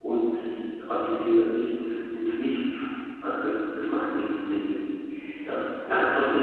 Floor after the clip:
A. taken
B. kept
B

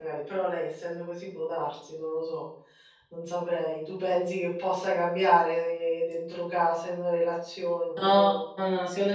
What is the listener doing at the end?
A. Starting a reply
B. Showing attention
A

